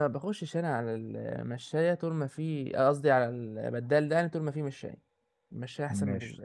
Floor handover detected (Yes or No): Yes